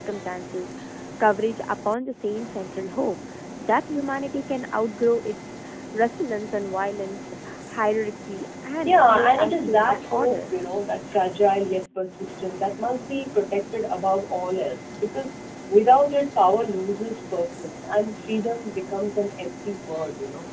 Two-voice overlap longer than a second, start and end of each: 8.8-10.4

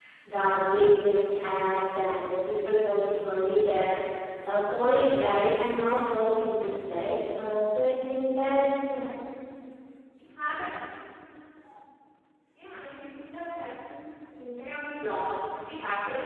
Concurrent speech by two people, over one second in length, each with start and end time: none

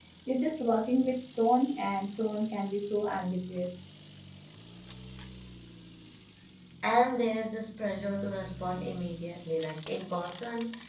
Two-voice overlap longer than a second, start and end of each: none

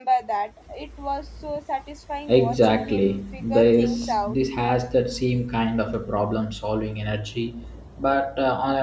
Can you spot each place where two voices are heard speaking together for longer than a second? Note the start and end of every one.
2.3-4.4

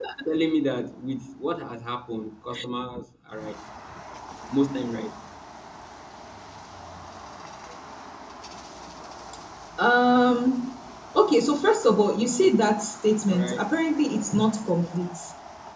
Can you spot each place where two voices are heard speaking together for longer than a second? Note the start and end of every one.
none

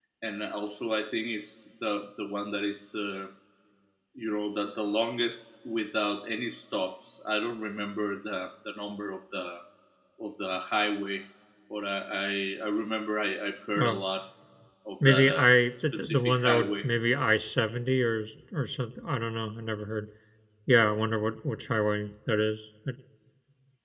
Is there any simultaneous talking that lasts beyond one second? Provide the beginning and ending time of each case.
15.1-16.9

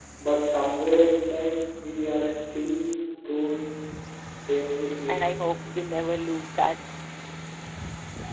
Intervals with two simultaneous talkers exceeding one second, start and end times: none

